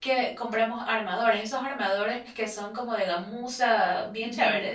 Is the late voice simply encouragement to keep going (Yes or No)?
No